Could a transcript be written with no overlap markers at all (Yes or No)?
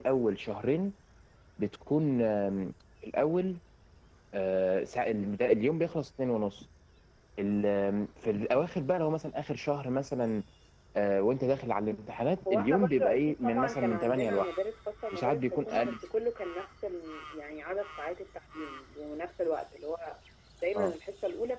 No